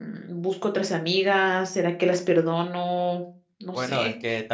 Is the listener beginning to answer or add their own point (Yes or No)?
Yes